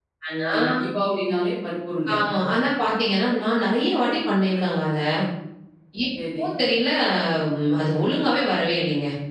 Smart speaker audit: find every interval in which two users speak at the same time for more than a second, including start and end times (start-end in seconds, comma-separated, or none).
none